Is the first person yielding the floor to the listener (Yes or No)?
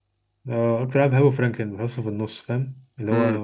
Yes